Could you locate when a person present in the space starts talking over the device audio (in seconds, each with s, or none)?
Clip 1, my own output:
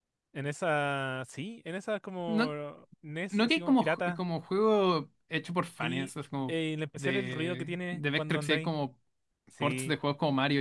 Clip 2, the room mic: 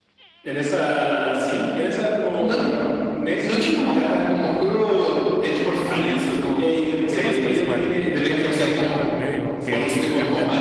7.1 s